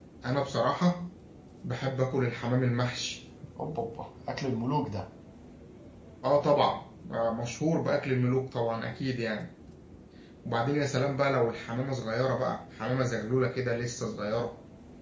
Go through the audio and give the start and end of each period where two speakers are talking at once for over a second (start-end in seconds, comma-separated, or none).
none